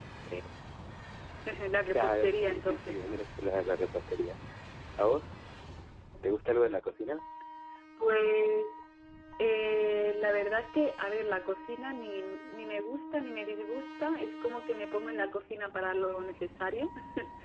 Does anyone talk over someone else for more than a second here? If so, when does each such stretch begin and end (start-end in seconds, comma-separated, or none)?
1.9-3.2